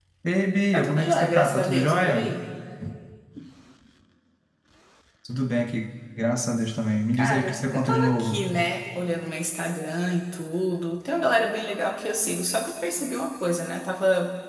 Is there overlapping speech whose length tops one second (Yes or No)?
Yes